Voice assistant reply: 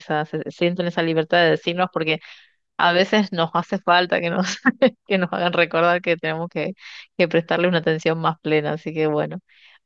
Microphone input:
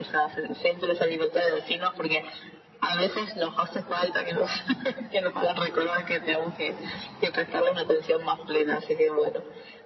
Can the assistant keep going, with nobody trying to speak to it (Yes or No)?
Yes